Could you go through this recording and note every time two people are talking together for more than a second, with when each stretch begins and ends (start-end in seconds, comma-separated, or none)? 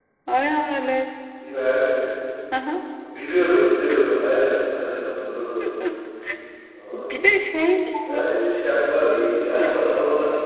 none